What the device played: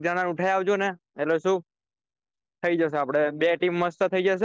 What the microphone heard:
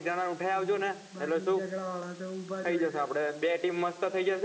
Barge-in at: 1 s

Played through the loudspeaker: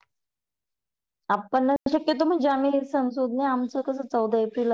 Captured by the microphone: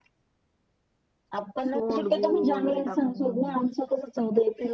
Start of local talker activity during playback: 2 s

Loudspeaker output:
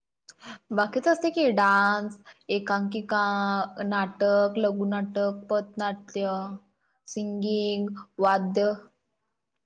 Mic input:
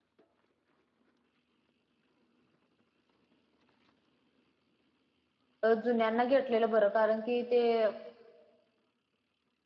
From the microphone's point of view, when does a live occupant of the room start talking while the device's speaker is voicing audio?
6 s

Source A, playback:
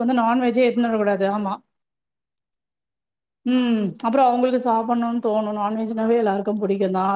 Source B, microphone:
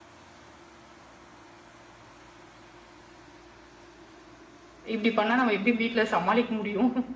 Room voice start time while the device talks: 5 s

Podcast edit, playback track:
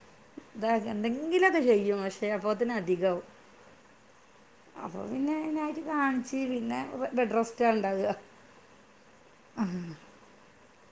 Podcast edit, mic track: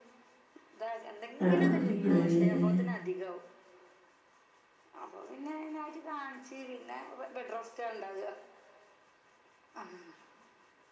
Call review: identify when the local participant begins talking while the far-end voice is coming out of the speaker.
1 s

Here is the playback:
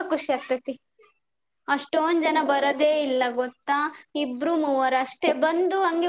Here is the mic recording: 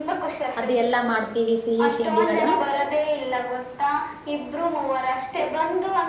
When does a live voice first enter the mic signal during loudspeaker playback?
1 s

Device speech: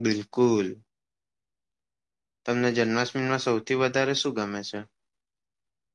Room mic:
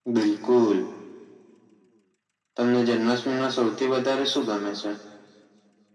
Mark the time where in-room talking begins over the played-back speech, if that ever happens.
none

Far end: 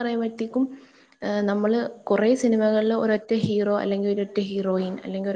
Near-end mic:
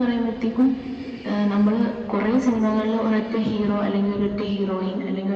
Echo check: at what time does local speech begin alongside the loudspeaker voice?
none

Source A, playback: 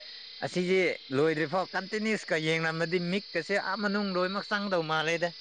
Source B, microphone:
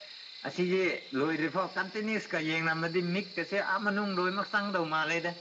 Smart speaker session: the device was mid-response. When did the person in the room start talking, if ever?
none

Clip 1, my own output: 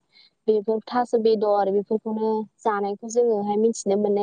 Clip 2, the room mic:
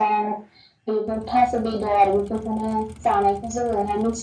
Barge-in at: none

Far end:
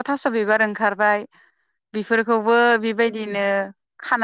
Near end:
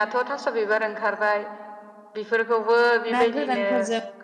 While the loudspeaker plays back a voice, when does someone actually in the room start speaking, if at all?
3 s

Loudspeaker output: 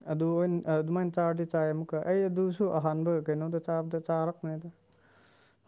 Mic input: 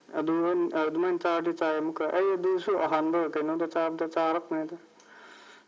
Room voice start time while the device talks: none

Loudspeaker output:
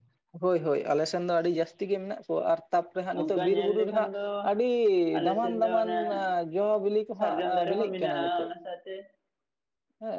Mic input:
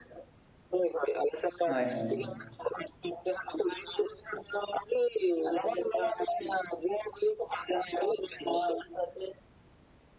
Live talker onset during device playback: 2 s

